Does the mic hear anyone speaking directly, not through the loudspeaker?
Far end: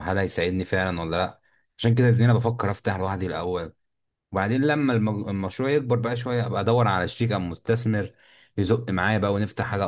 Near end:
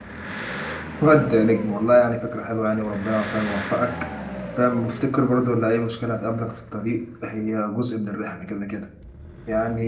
Yes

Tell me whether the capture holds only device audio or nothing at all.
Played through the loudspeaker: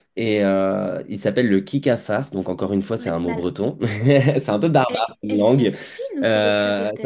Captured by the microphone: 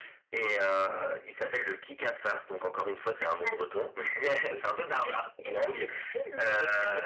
Yes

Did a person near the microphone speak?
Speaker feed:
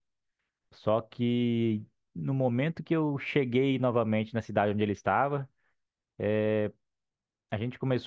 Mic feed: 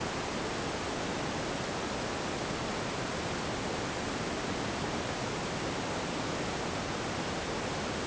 No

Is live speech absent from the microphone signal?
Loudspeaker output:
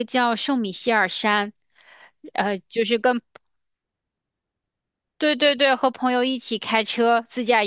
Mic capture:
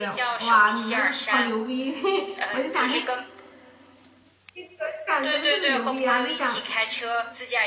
No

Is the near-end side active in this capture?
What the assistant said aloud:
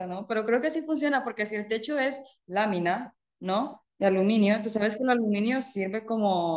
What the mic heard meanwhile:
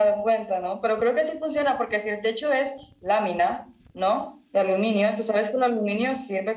No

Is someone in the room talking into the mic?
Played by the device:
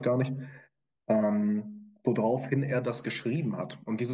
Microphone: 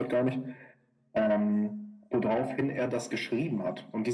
No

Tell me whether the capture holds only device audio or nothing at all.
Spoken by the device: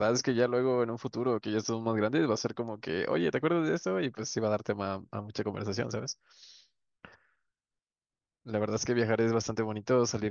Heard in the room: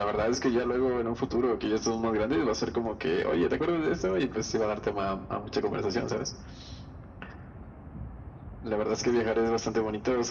Yes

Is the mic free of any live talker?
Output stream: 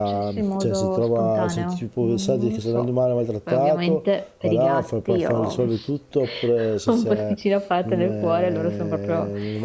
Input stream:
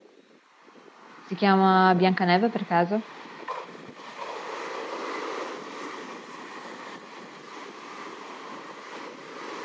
No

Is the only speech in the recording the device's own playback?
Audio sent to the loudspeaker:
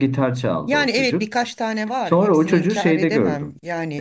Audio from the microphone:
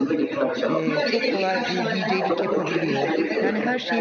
No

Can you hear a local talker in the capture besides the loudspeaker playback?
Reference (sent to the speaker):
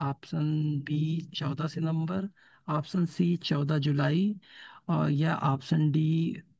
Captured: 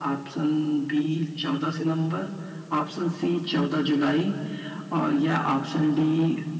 No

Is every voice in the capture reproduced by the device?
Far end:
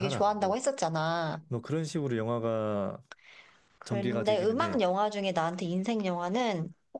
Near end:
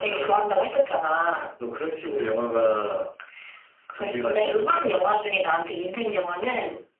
Yes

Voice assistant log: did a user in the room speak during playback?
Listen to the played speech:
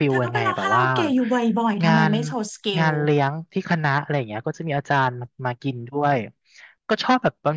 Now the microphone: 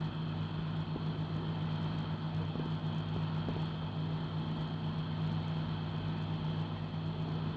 No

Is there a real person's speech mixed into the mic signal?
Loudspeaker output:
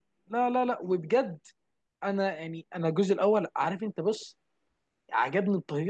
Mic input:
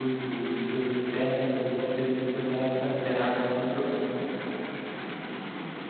Yes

